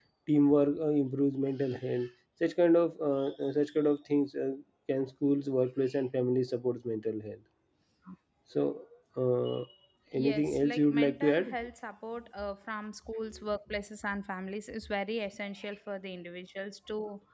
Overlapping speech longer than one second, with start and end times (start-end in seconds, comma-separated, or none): 10.1-11.6